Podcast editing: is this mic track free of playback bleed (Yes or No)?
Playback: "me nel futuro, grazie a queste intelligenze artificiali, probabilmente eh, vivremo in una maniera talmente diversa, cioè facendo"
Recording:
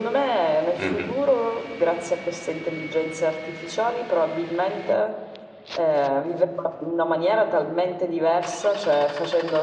No